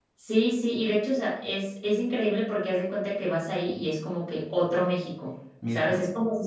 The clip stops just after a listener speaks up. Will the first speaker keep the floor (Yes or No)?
Yes